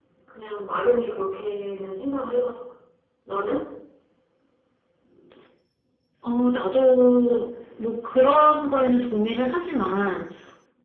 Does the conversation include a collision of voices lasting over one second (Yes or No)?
No